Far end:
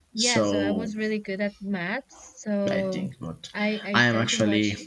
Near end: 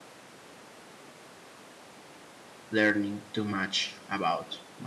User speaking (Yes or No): Yes